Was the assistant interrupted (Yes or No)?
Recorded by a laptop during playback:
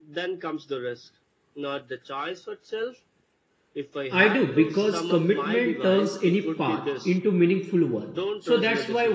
Yes